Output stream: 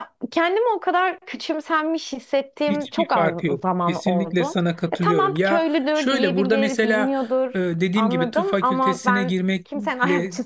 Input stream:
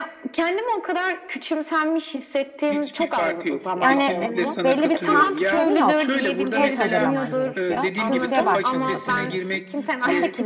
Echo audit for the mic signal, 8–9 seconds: both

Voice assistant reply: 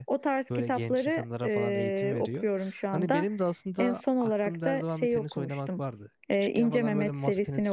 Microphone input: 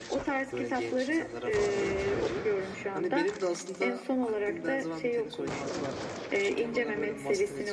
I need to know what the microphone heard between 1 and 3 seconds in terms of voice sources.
echo only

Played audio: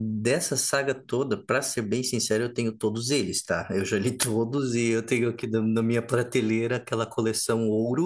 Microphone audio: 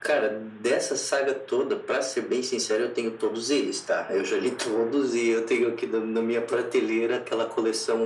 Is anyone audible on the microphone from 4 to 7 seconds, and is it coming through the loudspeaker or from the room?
echo only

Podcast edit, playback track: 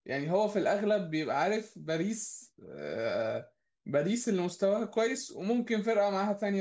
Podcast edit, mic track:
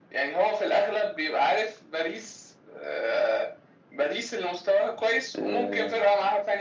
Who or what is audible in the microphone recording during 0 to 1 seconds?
echo only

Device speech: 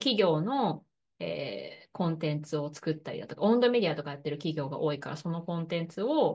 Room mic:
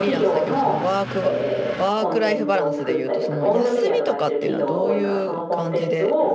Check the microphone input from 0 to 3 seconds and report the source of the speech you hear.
both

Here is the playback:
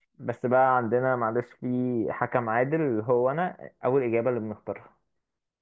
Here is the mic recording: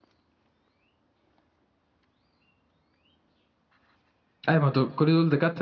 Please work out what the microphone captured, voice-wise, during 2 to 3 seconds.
neither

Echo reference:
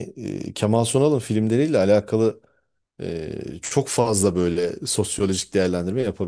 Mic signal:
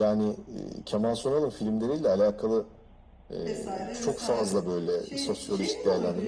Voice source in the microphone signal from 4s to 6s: both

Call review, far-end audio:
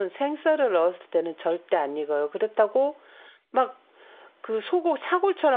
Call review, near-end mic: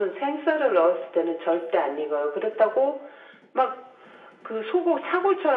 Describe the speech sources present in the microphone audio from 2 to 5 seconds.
echo only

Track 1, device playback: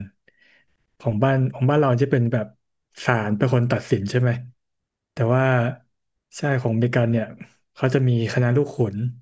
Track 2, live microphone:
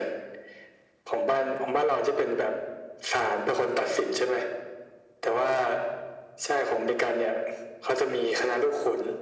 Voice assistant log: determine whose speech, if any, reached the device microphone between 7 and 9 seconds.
echo only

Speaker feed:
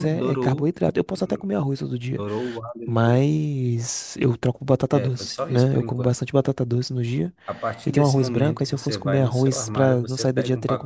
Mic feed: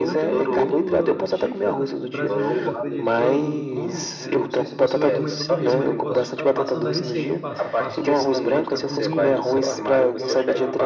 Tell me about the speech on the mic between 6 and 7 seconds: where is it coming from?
both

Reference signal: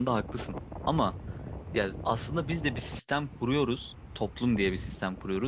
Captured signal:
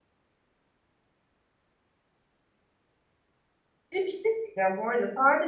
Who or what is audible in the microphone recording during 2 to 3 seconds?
neither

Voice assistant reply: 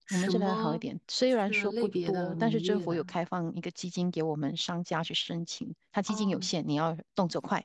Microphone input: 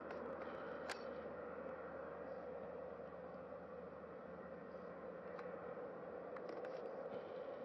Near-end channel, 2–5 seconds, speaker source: neither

